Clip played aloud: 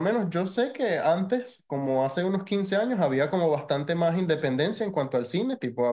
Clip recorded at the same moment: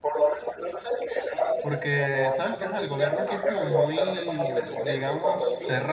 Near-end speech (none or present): present